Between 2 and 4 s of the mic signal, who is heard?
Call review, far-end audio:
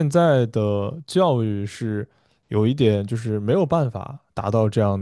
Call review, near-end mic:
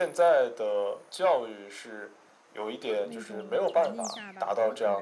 both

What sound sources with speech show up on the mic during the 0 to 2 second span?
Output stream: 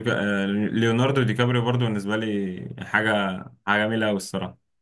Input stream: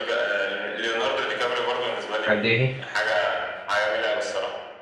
echo only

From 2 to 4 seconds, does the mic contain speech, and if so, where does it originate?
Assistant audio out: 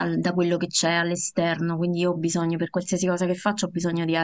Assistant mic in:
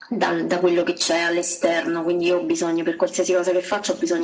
echo only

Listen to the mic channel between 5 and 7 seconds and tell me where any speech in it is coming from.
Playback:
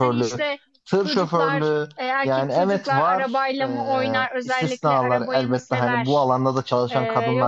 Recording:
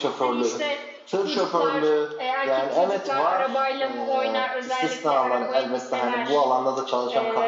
echo only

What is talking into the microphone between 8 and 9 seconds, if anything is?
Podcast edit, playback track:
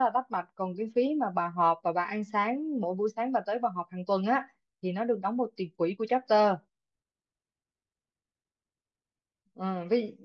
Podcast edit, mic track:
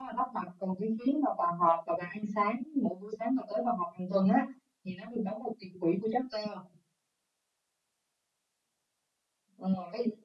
neither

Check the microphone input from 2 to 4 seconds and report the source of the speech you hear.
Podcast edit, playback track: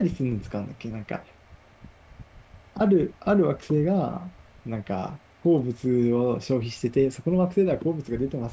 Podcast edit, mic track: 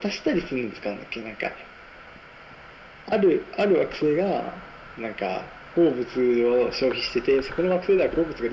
echo only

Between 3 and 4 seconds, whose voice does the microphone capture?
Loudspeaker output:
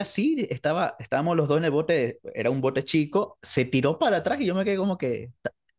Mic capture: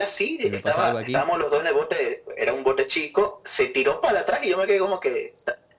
echo only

